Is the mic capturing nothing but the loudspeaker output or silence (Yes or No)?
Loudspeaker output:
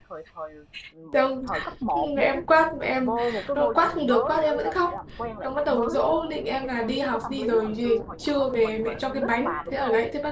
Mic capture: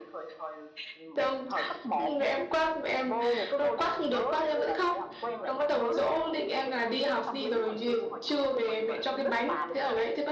Yes